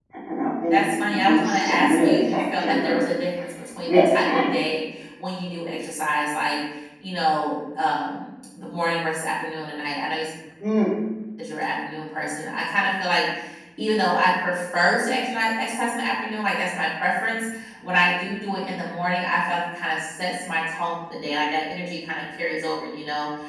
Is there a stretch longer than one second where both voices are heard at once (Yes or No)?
Yes